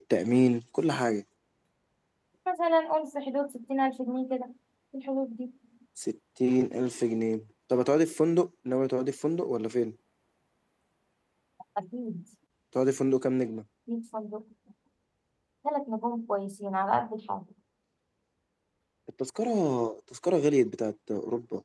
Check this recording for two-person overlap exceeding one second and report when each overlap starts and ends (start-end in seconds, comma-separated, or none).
none